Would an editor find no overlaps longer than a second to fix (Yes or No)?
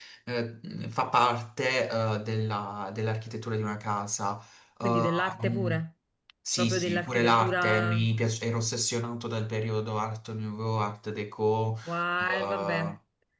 No